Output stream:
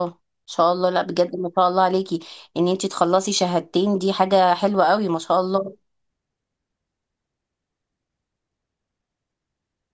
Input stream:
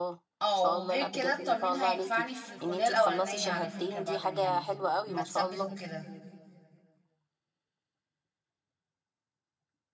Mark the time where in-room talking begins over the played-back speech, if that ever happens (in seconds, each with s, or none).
0.4 s